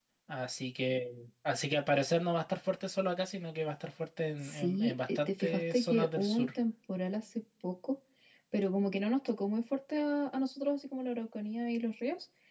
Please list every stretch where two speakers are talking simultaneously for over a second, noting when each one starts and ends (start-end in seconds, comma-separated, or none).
4.4-6.5